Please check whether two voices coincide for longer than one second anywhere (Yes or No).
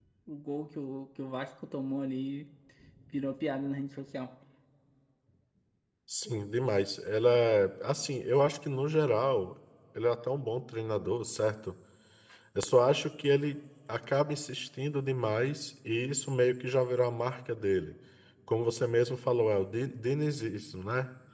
No